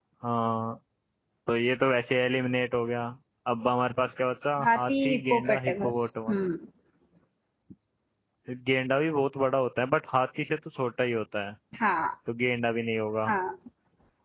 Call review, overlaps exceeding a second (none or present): present